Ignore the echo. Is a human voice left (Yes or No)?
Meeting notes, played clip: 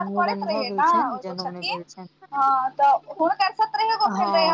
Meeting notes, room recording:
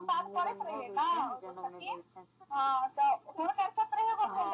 No